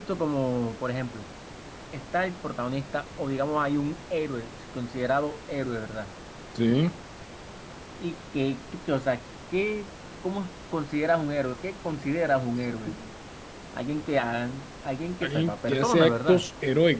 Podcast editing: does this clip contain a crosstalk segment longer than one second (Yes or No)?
Yes